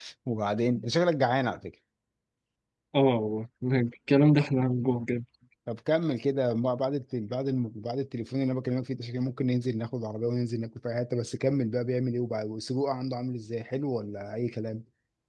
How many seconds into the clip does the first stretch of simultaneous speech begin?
none

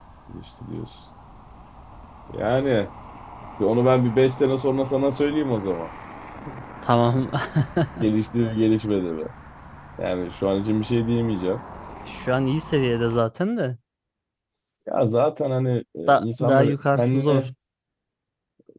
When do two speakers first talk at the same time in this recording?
16 s

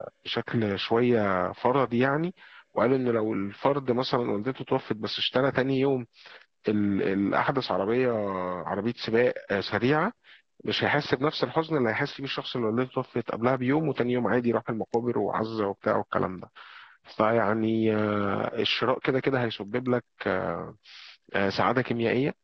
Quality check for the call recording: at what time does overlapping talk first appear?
none

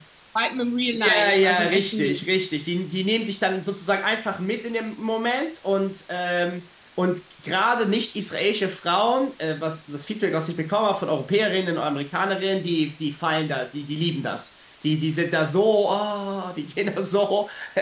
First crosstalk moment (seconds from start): 1 s

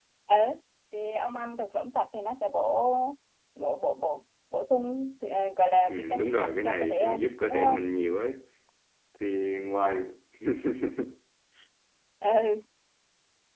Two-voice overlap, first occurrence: 6 s

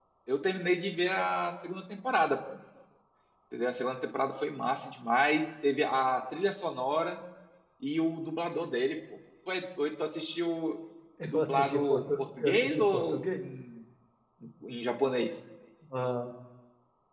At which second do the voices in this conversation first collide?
11 s

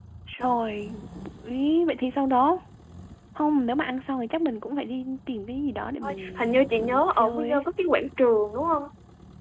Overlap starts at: 6 s

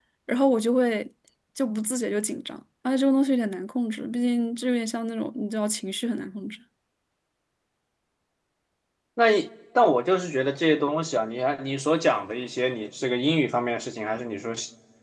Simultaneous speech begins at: none

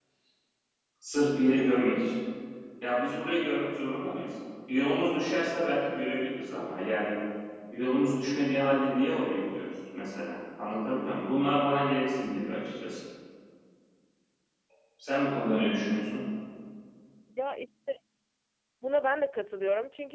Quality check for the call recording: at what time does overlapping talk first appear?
none

